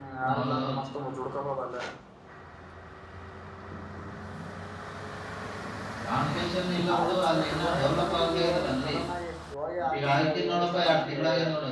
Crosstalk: present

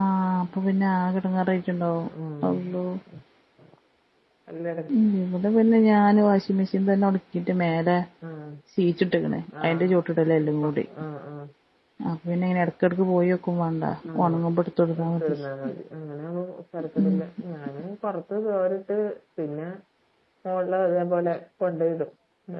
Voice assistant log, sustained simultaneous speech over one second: none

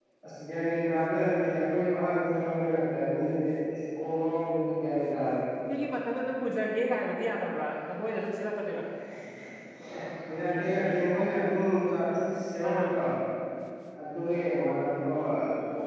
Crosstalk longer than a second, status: none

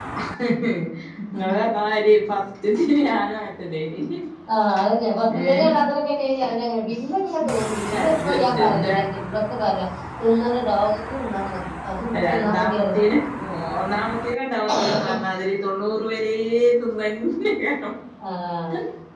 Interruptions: present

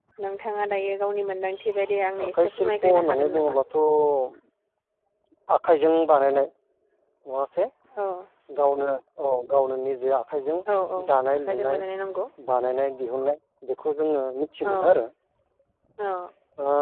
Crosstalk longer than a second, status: present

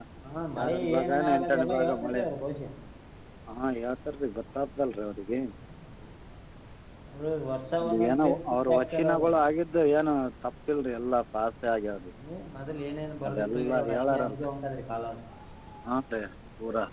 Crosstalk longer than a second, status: present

